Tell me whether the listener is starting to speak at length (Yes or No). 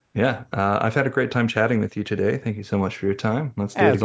Yes